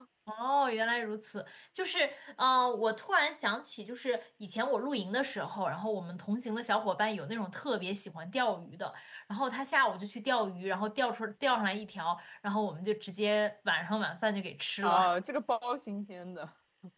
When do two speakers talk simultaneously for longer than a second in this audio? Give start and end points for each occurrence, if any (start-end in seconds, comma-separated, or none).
none